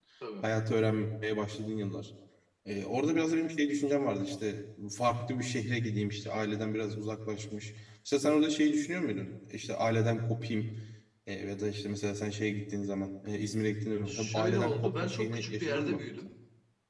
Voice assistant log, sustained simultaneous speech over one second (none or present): present